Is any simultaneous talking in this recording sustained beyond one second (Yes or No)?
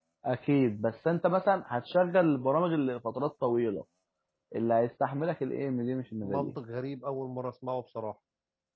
No